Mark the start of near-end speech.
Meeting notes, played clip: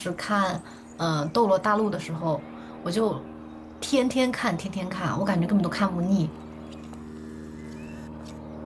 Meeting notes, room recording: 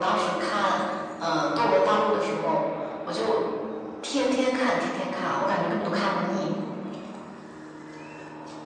none

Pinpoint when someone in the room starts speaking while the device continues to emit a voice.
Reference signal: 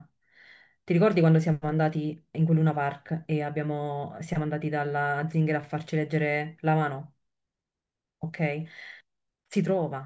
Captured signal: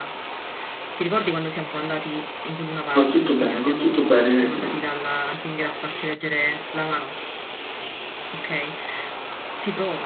3 s

